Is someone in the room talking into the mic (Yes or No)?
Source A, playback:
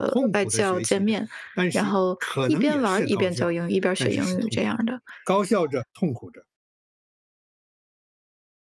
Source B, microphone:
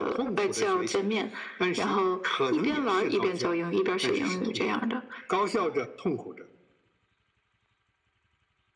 No